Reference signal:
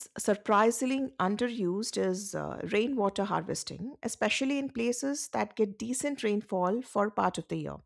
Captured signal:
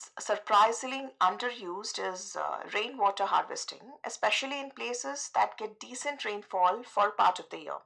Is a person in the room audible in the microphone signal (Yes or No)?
No